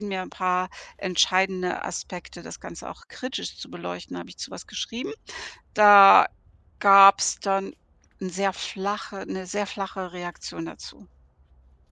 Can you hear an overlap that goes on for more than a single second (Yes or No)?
No